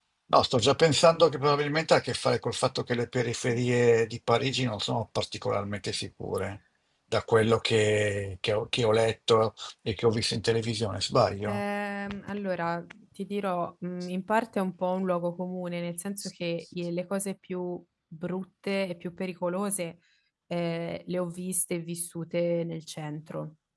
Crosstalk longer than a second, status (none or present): none